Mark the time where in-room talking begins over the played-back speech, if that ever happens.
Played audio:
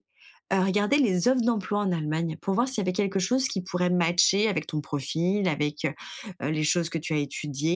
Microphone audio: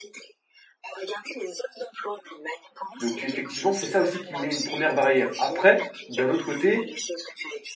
3.0 s

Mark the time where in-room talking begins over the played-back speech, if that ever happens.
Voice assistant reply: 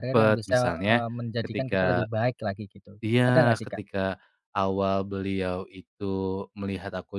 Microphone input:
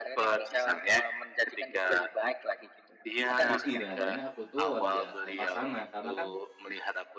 3.4 s

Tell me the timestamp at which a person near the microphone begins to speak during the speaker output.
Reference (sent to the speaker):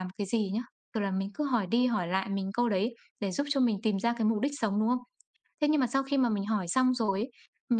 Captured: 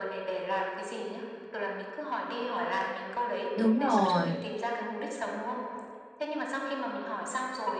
3.5 s

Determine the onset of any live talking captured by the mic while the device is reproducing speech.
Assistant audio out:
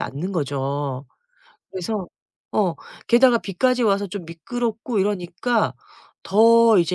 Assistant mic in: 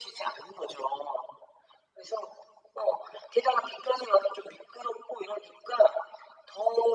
none

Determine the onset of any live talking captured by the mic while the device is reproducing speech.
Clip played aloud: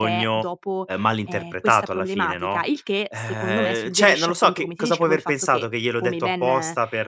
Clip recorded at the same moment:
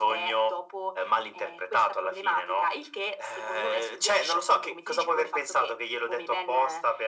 none

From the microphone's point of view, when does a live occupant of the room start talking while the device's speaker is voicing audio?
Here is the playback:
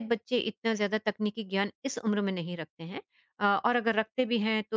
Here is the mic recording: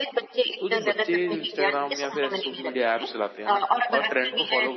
0.6 s

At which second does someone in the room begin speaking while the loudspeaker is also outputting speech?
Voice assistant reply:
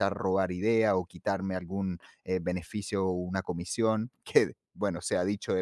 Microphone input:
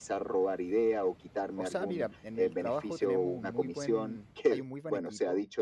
1.5 s

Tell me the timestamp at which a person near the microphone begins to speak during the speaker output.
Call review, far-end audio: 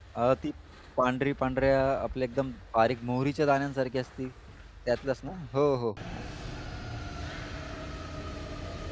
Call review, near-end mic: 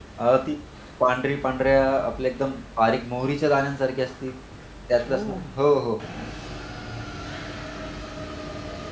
5.1 s

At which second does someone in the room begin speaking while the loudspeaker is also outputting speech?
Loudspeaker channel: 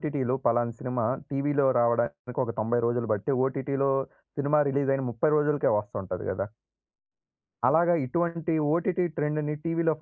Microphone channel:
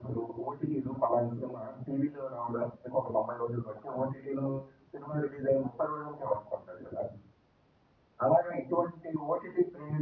none

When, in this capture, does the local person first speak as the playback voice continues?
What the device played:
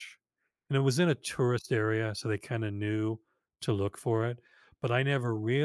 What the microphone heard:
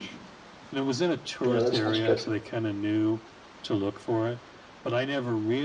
1.4 s

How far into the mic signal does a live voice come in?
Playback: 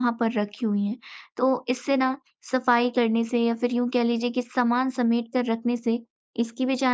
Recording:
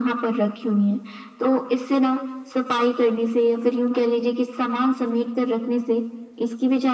none

